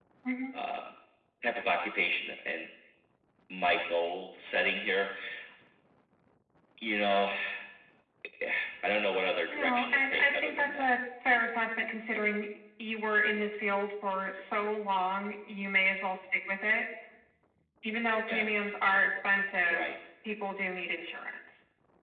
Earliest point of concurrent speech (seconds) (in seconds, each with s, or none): 9.5 s